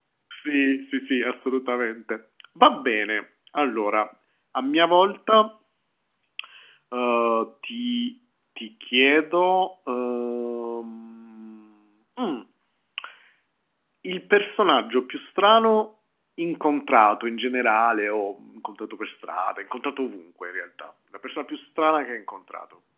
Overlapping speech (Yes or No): No